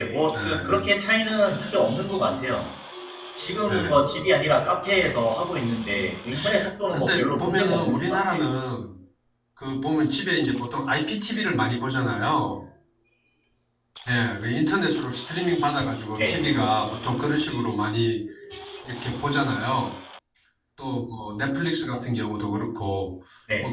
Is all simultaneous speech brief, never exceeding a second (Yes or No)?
No